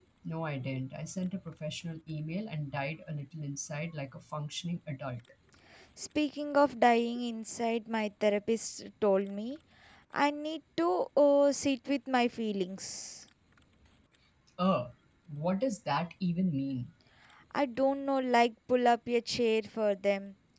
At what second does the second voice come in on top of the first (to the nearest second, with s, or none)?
none